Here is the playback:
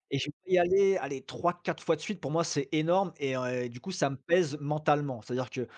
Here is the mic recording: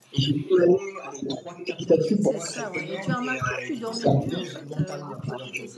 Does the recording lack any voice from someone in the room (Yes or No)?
No